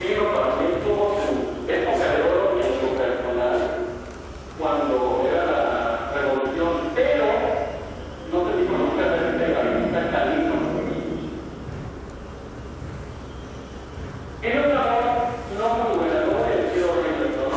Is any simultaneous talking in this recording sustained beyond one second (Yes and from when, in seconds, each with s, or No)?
Yes, from 8.6 s